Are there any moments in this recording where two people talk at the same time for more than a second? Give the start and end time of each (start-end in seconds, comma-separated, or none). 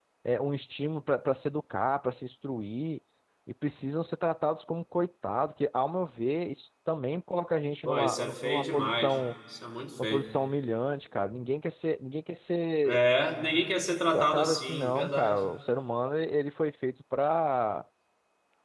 7.8-9.2, 14.1-15.4